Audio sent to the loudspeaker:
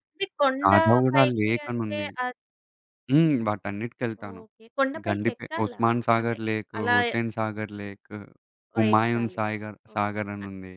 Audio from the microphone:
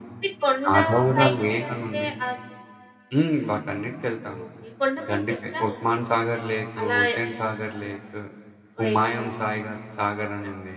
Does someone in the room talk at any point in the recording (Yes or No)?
No